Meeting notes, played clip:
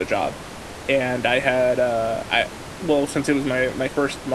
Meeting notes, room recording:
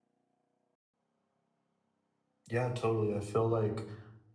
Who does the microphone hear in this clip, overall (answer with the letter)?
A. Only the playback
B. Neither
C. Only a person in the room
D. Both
C